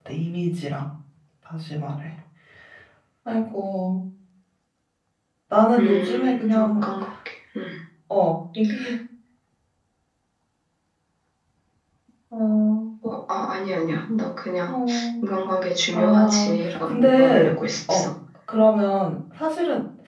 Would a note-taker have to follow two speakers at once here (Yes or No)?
Yes